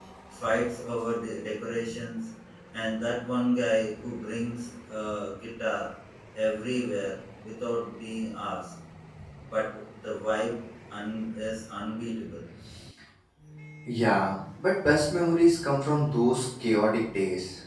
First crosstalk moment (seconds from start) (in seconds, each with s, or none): none